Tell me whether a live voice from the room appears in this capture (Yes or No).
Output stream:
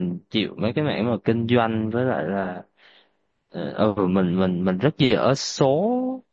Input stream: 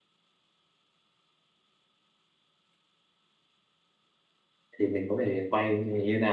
Yes